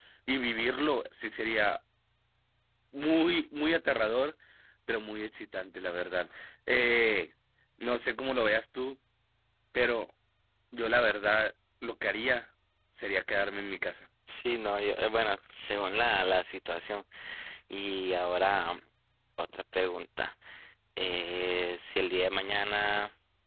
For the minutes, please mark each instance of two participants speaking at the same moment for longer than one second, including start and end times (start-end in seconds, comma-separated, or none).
none